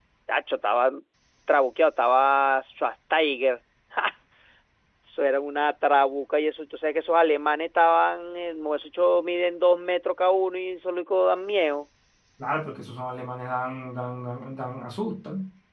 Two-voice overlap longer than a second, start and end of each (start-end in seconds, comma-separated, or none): none